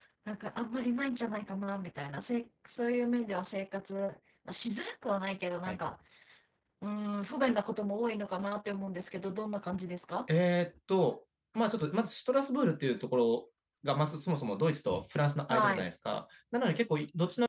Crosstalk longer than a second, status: none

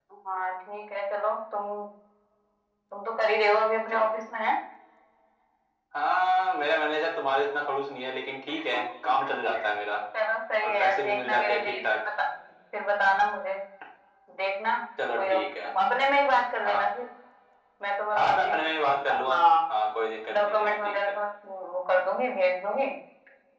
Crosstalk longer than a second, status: present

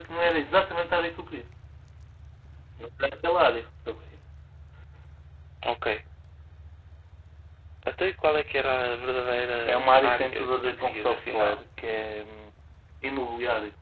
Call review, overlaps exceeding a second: present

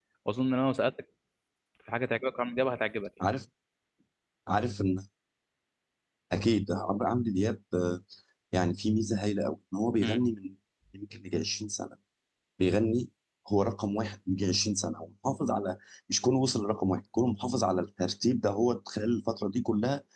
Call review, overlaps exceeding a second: none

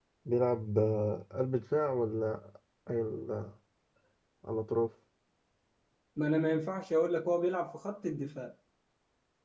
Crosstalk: none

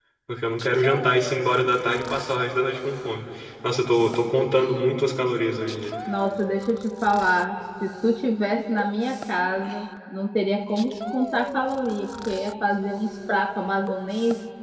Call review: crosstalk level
none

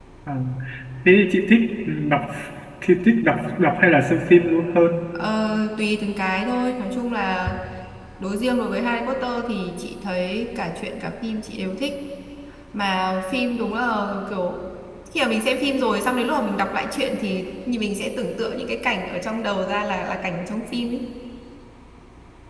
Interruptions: none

